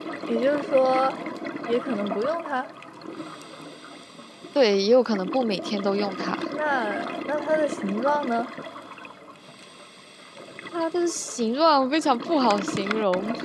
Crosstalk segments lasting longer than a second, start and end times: none

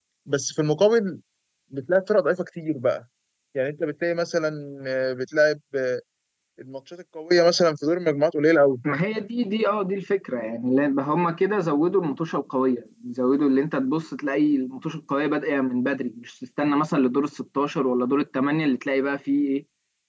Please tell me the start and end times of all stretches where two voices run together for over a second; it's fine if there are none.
none

